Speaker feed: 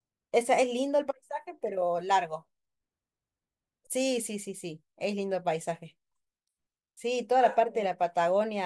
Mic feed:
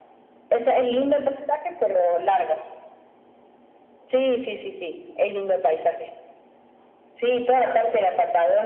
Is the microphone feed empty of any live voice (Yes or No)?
Yes